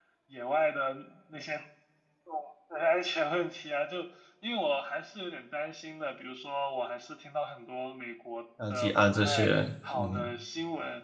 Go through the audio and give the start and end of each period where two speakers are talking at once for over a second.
8.7-10.3

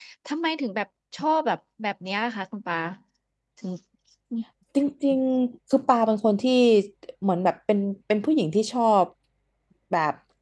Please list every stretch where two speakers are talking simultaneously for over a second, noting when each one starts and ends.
none

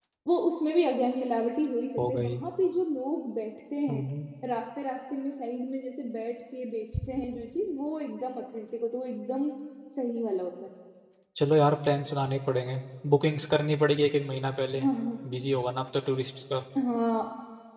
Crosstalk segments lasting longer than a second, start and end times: none

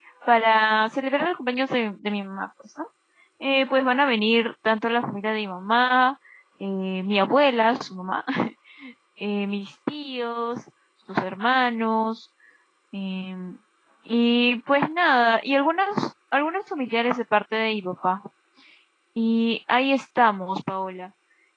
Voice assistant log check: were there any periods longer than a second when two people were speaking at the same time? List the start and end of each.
none

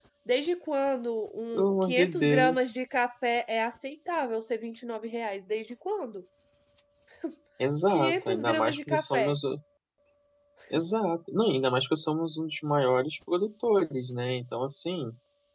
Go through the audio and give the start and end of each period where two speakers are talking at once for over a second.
1.5-2.7, 7.9-9.3

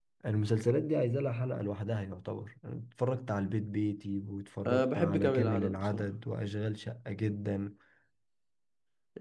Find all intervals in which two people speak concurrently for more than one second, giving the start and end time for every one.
4.7-6.1

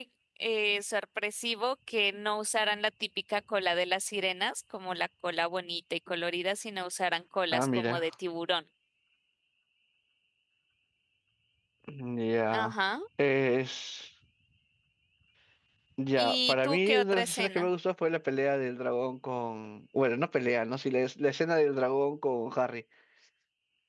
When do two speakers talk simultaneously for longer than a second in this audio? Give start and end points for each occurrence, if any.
16.2-17.7

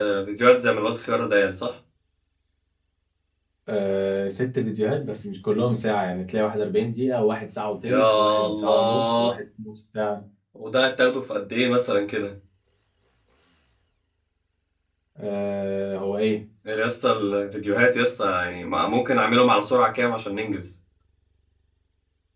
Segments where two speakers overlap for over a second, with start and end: 7.8-9.3

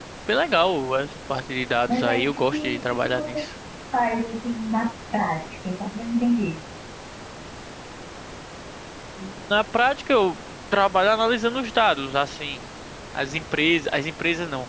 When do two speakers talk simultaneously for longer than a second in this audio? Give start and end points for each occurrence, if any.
1.9-3.5

